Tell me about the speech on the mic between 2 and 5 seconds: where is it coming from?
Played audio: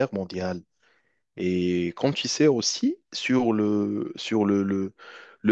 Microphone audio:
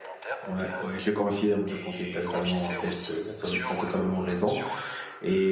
both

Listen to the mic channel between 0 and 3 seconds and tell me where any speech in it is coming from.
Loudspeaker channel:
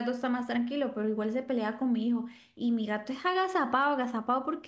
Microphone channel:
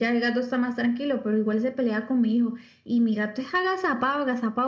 echo only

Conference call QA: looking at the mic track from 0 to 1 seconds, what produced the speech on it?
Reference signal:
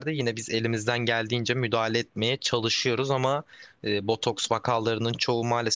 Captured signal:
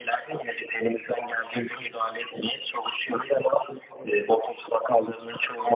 echo only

